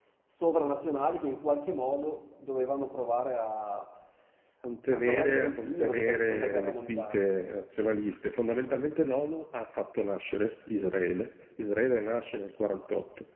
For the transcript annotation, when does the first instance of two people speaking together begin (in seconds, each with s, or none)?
4.9 s